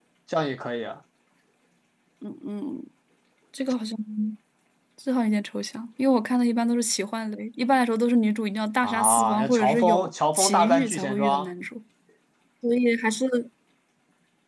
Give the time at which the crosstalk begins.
8.8 s

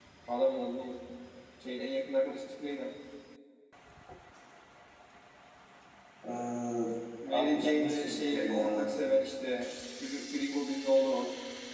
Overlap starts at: 7.3 s

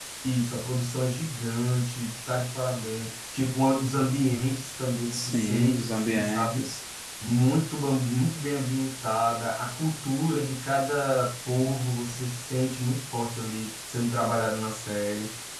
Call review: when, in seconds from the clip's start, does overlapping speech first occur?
5.1 s

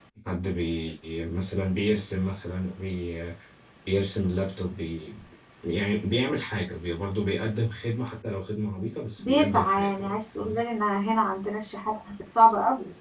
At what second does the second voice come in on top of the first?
9.2 s

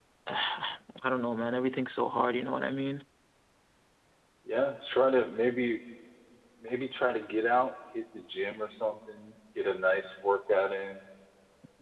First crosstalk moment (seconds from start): none

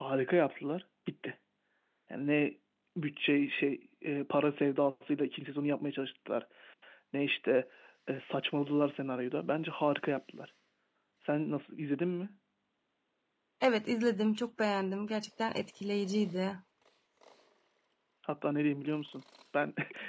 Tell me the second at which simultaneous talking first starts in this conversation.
none

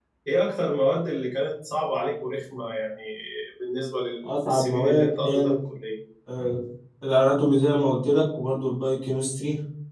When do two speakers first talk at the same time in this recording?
4.2 s

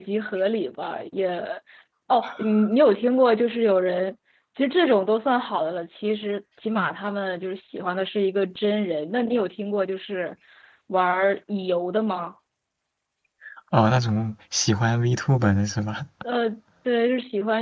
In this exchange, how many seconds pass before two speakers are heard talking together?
none

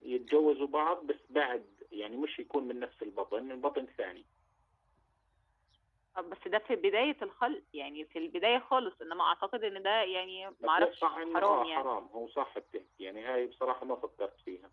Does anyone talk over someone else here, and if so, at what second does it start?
10.6 s

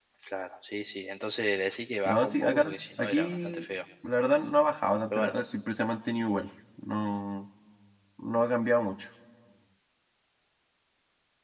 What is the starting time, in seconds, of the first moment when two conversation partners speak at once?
2.0 s

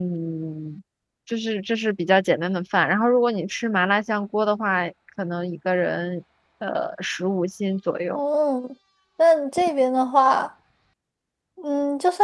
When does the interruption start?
none

